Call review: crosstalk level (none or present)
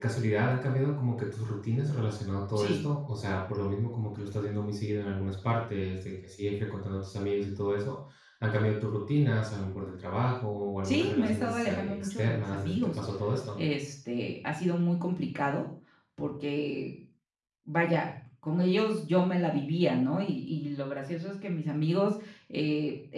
present